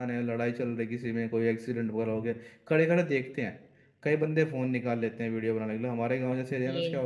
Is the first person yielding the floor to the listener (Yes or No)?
No